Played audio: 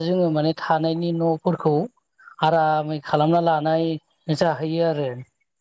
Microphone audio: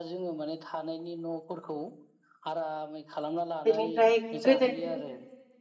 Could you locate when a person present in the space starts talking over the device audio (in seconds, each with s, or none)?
3.7 s